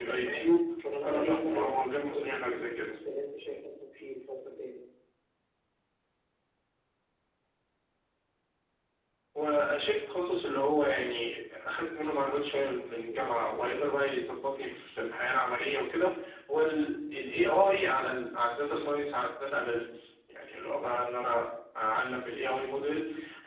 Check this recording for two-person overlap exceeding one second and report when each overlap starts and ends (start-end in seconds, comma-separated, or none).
1.0-2.9